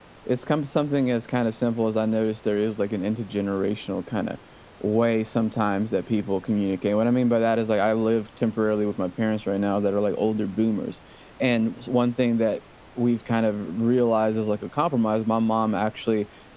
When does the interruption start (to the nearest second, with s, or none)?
none